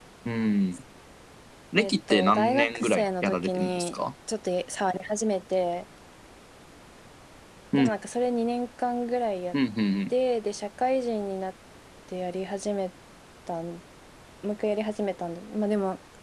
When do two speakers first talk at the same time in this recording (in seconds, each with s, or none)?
1.8 s